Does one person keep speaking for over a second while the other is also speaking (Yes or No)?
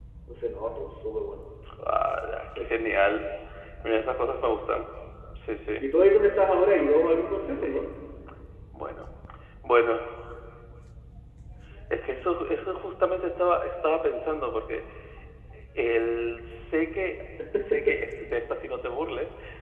No